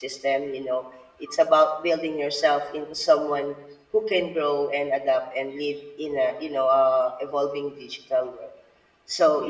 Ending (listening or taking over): listening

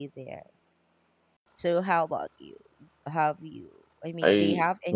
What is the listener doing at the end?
taking over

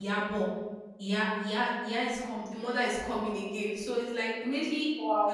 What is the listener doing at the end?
listening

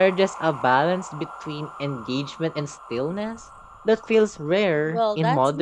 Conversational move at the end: taking over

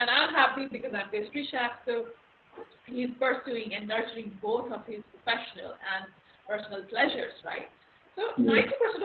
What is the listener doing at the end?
listening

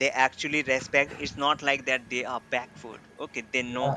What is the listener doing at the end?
listening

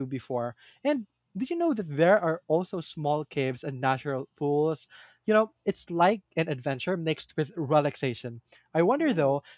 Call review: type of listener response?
listening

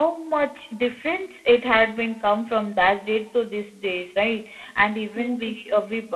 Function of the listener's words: listening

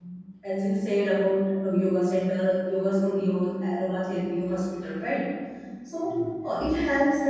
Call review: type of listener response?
listening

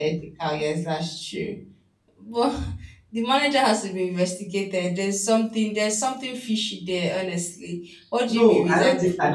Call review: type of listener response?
taking over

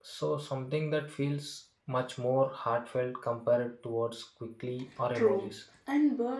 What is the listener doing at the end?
taking over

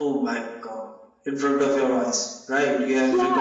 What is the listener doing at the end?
taking over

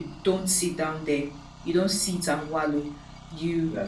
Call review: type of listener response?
listening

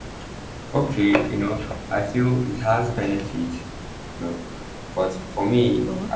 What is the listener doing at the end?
listening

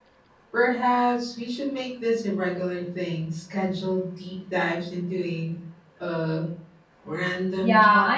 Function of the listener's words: taking over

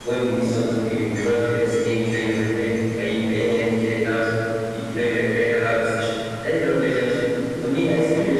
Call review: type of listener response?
listening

